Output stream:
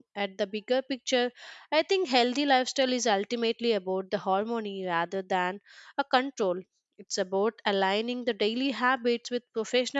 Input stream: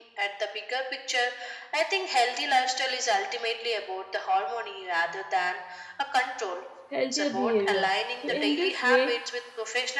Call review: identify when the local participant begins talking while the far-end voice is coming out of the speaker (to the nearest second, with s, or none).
7 s